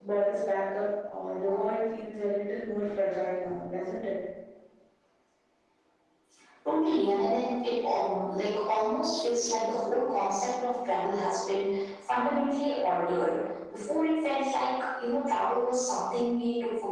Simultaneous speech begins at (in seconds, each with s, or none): none